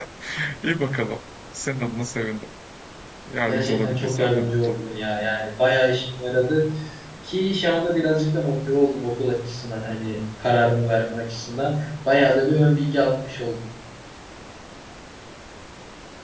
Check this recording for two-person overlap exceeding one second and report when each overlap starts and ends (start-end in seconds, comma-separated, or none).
3.5-4.8